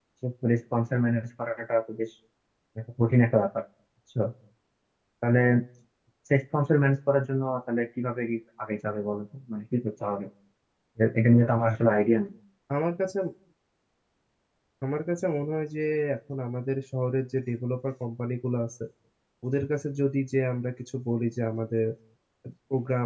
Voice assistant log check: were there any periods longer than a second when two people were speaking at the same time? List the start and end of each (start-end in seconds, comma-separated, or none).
none